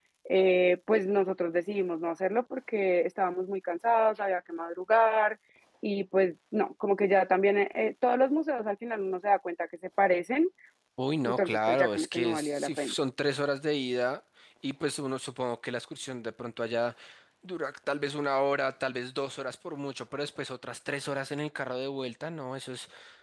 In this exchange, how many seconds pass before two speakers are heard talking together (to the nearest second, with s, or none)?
11 s